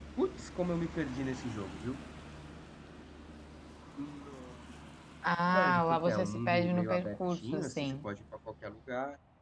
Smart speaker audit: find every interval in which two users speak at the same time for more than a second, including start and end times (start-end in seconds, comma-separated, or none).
5.5-8.0